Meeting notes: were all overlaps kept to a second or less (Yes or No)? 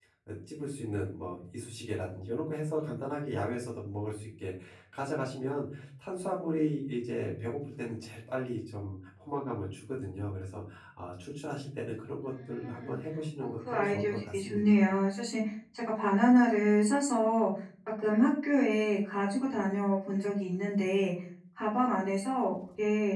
No